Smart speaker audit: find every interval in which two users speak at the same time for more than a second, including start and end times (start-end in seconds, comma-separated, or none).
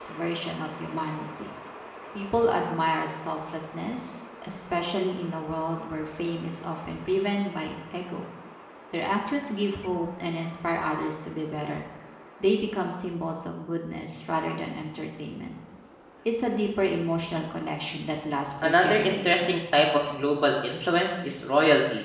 18.6-19.9